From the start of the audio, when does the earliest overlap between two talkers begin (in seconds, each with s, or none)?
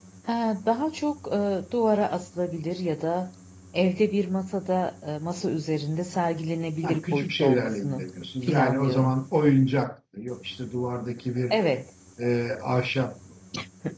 6.8 s